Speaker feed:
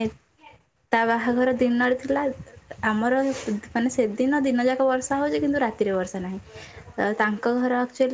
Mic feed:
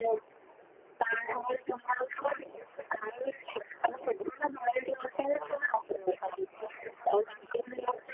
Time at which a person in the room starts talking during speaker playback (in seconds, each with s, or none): none